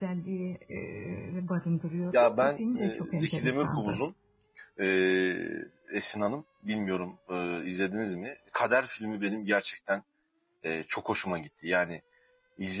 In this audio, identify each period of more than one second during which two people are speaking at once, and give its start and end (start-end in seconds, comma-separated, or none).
2.1-4.0